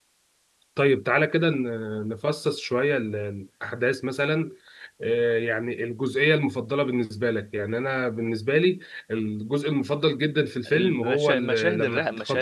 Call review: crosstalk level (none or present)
present